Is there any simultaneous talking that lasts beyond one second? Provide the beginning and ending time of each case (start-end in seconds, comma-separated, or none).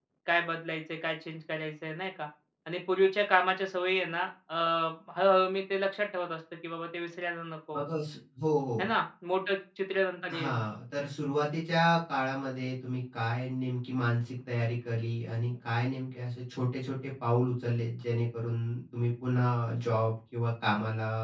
none